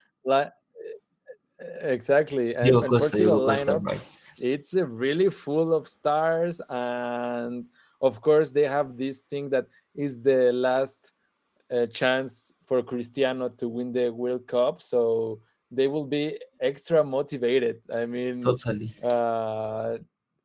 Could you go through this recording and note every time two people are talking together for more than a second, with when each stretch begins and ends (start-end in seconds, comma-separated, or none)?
2.6-3.8